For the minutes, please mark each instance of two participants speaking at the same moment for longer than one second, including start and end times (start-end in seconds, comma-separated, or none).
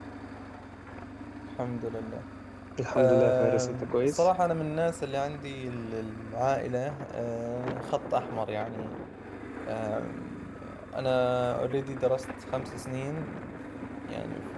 2.9-4.3